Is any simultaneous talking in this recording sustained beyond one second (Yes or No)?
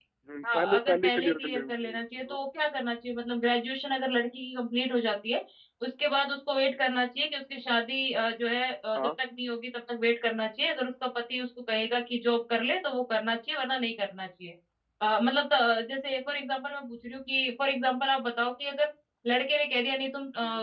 Yes